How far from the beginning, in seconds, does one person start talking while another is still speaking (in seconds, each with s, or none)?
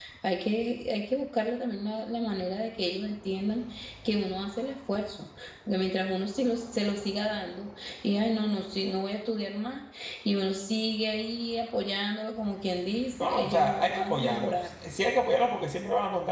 13.2 s